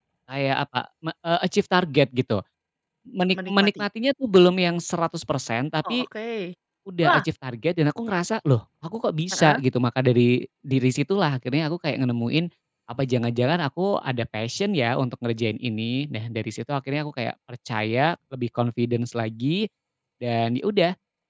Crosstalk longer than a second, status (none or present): none